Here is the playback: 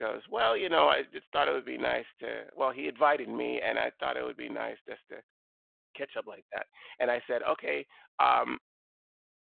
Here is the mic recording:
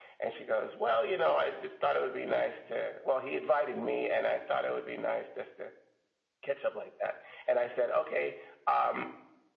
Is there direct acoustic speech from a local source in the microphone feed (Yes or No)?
No